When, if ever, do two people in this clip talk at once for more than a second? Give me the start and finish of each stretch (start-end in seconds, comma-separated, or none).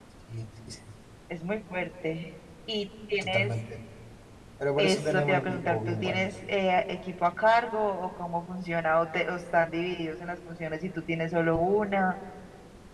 4.8-6.2